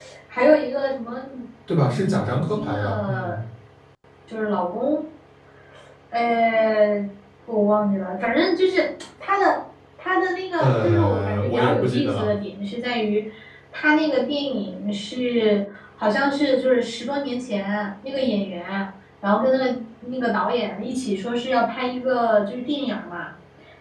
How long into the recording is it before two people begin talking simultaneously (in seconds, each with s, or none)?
1.8 s